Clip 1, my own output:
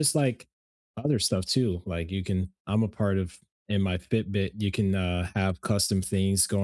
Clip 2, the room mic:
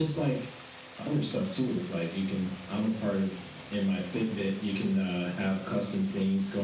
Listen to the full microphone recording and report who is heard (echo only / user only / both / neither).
echo only